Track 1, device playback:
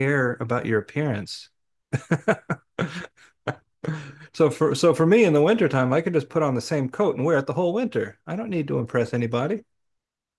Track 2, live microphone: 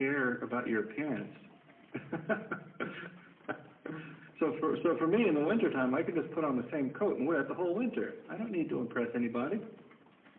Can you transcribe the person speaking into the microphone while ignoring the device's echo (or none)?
none